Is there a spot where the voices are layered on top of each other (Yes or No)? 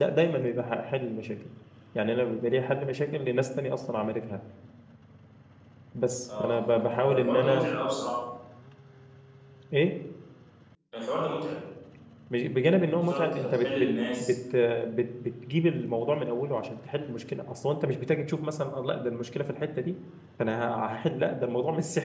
Yes